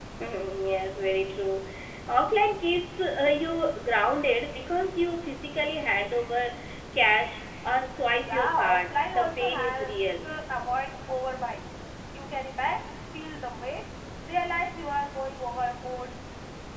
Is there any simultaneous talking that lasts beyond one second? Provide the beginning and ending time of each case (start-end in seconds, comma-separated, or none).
8.2-10.3